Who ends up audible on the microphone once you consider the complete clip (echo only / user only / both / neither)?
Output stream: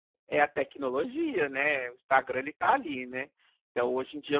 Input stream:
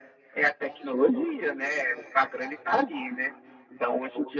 echo only